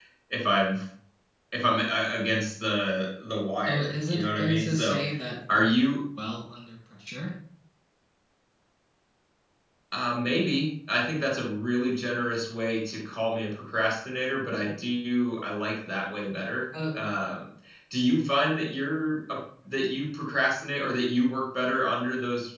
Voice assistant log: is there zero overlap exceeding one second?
No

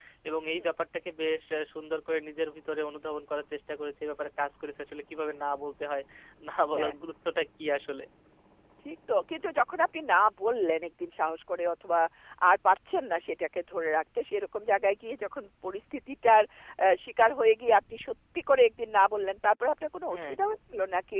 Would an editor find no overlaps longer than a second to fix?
Yes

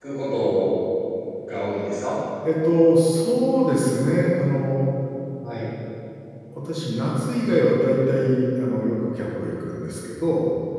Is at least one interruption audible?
No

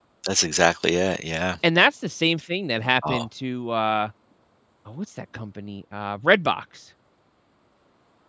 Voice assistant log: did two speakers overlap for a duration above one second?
No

